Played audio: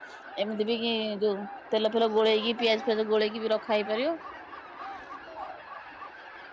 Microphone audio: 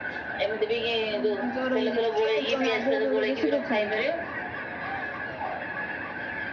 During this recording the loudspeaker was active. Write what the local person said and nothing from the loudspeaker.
ହ ମୁଁ ଜର ହେଇଯାଇଥିଲି କେମିତି ଗାଧୁଆ ପଧୁଆ ବେଶୀ କରୁଥିଲା କି?

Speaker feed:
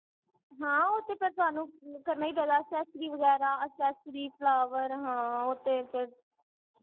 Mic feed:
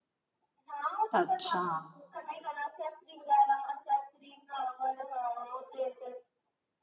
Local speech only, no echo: ਅਛਾ-

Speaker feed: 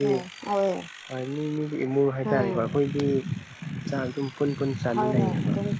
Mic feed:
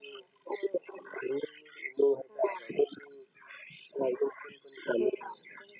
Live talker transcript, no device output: none

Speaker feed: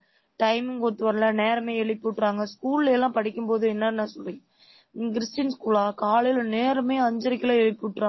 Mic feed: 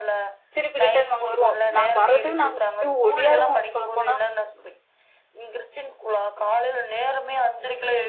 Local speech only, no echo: திருப்பி ரிட்டன் நாங்க வருவோ நாங்க வர்றதுக்கு நாங்க அப்டியே ஒடியாருவோ சொல்லப்போனா

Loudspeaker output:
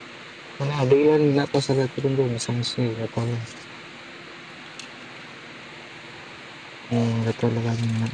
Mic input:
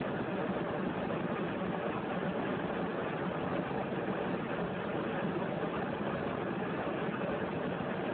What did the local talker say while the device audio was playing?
none

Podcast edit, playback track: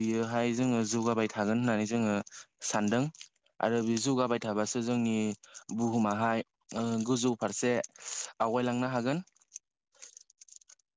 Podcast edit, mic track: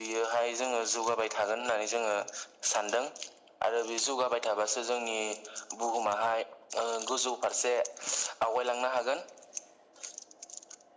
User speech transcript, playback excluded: none

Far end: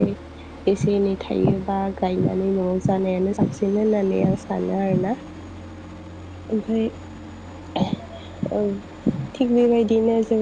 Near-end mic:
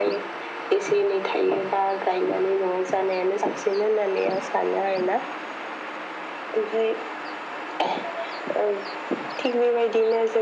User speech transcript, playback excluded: none

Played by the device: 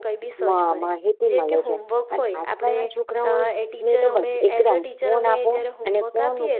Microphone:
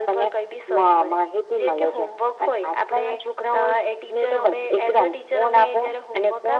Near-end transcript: none

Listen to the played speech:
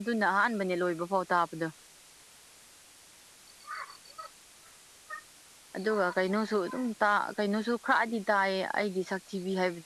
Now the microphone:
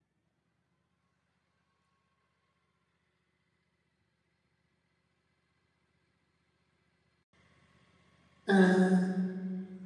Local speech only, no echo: ꯎꯝ

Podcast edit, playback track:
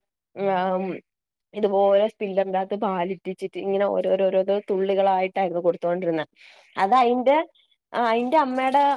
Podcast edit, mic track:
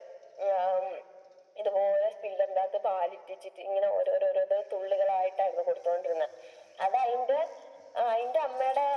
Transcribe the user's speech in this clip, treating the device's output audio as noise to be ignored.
none

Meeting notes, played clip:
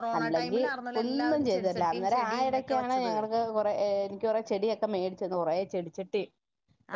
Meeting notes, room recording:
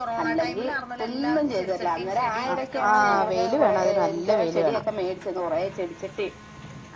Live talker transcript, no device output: ആ ആ വെയില് വേണം അതിന് നല്ല വെയില് വേണം

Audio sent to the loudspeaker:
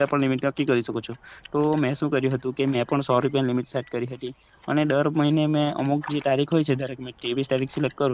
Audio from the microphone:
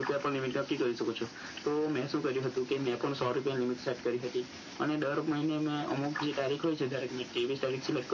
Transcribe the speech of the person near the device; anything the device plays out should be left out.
none

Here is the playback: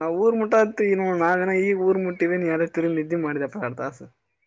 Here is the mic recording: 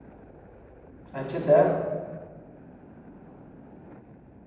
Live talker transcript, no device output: ಹಚ್ಚಿದ್ದ.

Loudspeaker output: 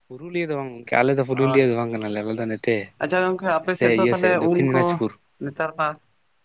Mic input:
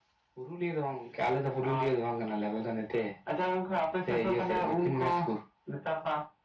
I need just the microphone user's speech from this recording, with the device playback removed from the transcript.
none

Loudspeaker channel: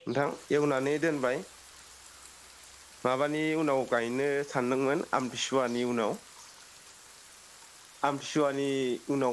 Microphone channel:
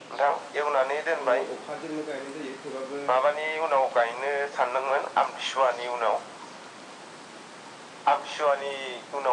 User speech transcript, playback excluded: दोंनि अखाजोंनो गायनाय जायो थेबाबो

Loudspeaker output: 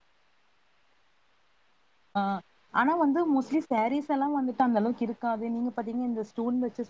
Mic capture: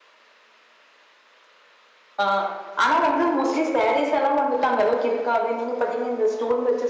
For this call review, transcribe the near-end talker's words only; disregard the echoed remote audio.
none

